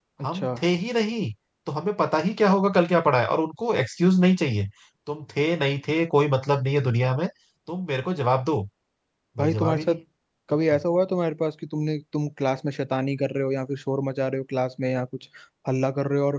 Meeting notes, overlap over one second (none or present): none